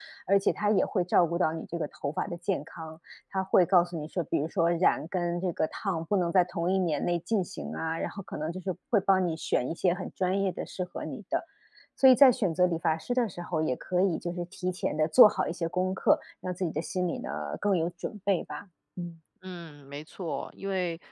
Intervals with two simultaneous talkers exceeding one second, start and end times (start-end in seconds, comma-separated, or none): none